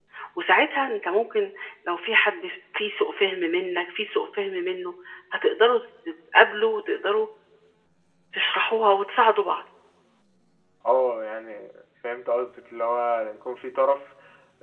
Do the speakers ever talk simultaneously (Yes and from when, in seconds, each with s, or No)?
No